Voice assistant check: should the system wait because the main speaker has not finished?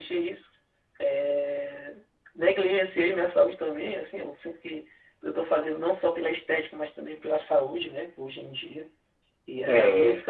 Yes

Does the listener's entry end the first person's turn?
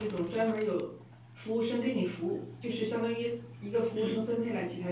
No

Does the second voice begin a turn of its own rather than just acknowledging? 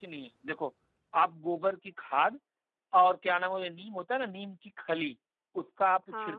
No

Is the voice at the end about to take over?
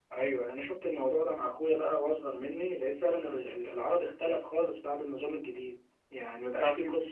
No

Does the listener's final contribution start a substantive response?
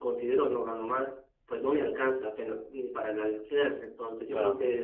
No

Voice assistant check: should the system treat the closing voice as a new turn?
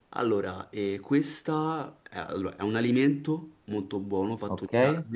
No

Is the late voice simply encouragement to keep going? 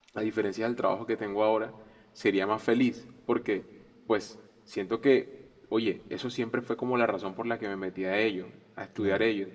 Yes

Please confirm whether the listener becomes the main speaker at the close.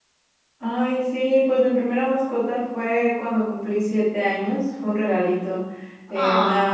No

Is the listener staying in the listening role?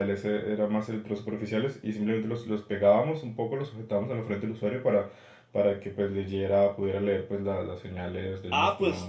No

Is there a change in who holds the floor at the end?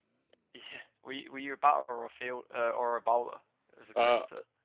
Yes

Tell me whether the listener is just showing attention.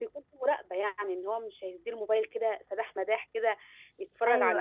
Yes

